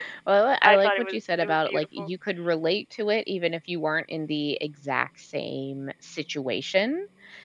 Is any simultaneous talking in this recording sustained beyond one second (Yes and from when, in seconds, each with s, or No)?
Yes, from 0.6 s